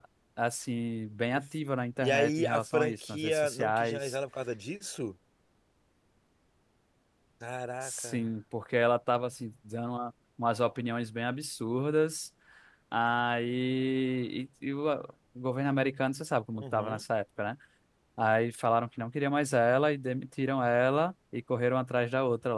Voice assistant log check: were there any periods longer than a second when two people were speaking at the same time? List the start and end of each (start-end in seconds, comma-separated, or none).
2.0-4.2